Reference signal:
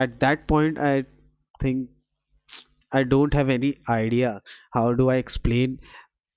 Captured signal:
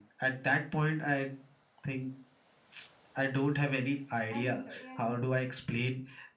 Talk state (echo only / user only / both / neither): both